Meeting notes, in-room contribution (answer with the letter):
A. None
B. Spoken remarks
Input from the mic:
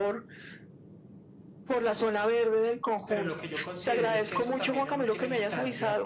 B